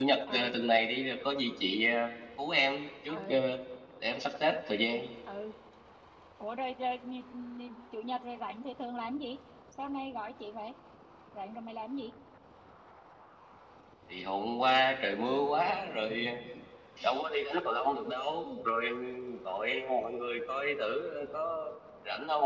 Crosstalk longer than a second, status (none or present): none